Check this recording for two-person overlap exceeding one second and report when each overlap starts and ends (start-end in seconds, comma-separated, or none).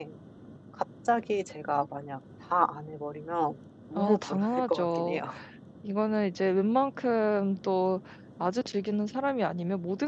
4.0-5.2